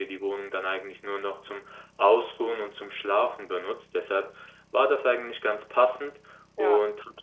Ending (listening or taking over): listening